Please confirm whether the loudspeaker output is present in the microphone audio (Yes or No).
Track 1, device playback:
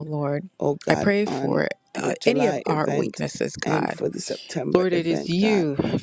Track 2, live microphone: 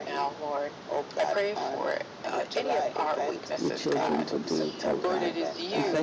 Yes